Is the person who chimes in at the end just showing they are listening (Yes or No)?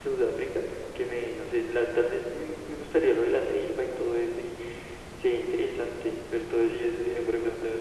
No